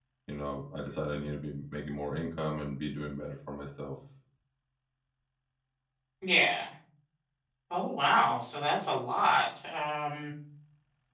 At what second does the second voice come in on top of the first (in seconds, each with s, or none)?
none